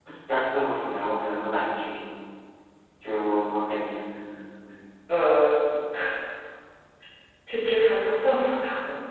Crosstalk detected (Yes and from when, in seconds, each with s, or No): No